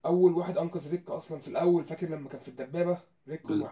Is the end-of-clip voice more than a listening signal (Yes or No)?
Yes